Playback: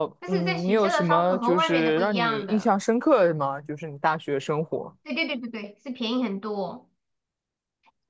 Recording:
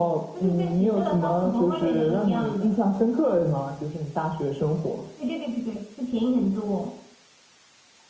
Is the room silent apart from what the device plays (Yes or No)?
Yes